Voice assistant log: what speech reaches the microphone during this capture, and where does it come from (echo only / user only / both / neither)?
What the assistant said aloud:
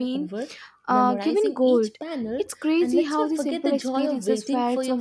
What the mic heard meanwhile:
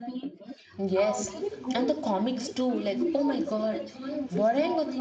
both